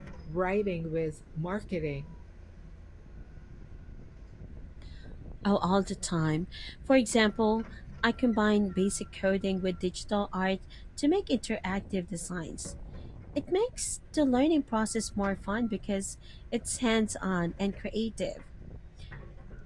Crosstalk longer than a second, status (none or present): none